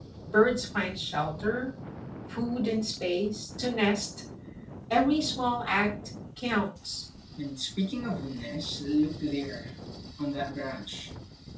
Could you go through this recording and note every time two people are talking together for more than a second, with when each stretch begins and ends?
none

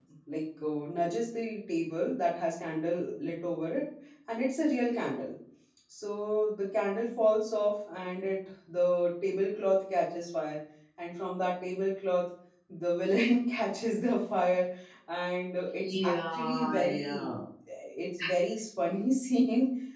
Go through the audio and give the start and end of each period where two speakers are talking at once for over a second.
15.8-17.3

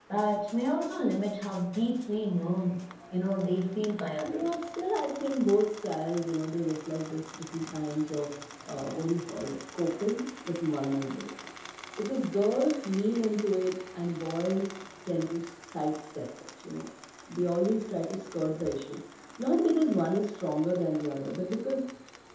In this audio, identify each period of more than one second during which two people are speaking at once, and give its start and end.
none

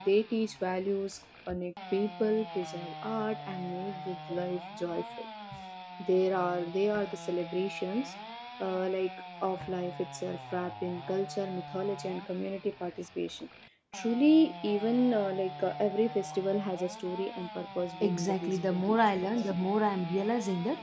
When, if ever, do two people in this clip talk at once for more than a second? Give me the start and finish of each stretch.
18.0-19.3

